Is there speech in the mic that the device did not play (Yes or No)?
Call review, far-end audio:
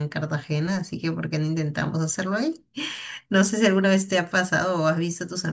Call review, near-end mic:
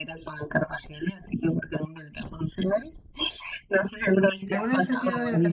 Yes